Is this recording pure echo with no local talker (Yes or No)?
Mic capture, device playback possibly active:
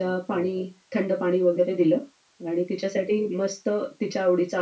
Yes